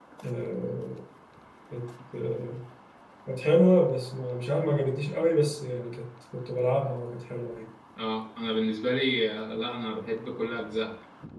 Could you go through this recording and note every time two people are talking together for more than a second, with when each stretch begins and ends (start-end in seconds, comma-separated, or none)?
none